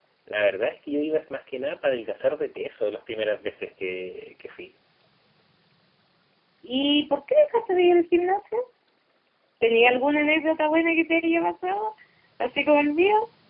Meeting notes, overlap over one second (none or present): none